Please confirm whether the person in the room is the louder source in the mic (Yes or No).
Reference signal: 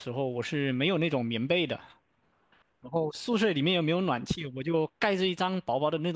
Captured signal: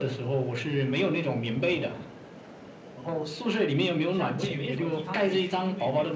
No